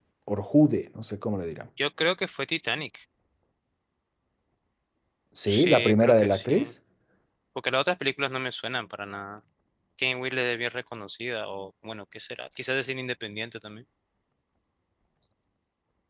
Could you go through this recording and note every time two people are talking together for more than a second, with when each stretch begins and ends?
5.5-6.7

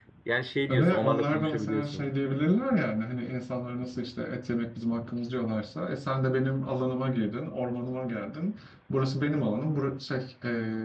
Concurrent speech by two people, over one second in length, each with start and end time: 0.7-2.1

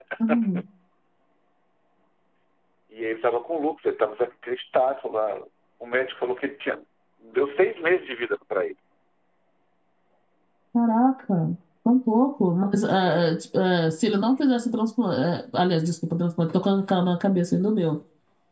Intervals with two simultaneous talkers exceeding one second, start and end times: none

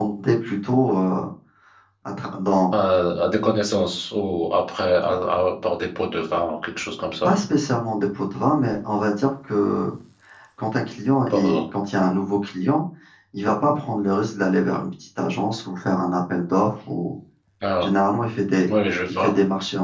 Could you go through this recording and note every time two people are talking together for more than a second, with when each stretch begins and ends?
none

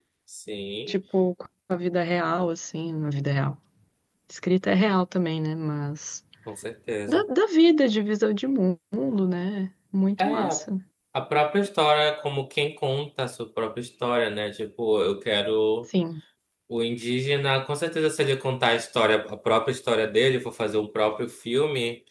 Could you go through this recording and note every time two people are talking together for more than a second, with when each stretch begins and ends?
none

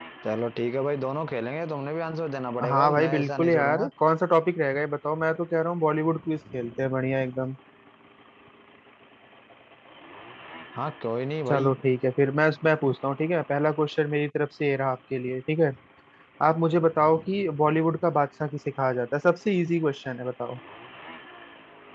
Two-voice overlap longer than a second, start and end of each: 2.7-3.9

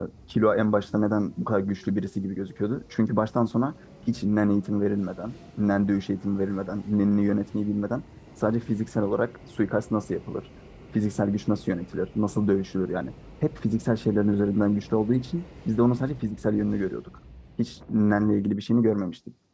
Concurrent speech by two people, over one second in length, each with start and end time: none

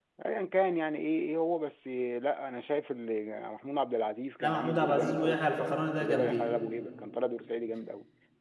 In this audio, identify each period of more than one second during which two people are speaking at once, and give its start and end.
4.4-6.5

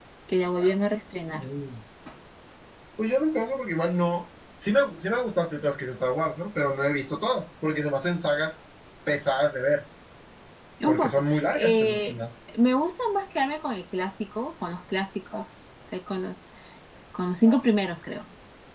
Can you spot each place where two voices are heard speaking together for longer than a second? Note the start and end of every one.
10.9-12.1

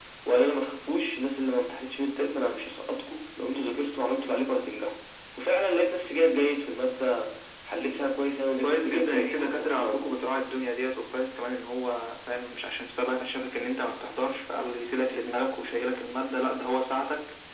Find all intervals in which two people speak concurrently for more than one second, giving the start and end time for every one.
8.6-10.2

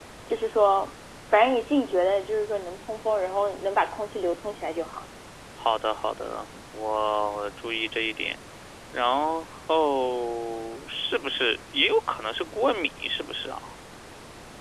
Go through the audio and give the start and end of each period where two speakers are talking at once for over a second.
none

